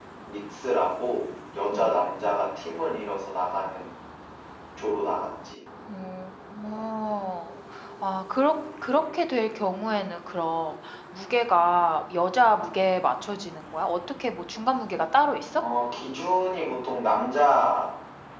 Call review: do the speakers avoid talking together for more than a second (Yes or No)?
Yes